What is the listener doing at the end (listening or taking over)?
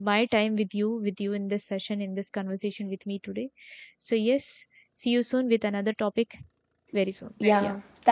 taking over